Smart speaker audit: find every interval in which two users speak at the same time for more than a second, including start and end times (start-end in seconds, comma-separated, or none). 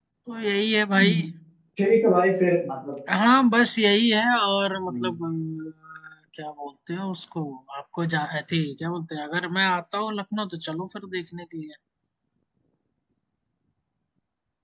none